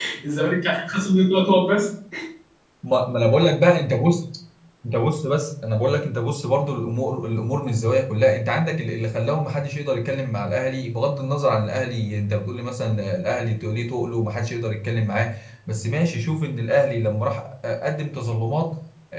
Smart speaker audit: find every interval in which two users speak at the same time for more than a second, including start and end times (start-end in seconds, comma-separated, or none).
none